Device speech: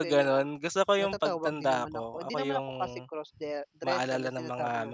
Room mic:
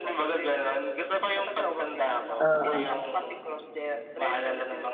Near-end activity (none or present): present